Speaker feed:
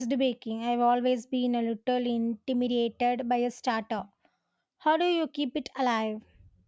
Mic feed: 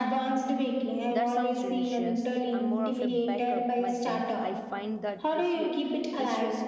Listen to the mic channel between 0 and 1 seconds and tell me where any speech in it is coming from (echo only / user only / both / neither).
echo only